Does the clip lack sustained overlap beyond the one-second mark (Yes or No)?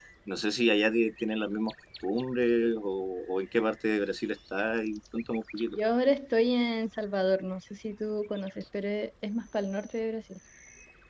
Yes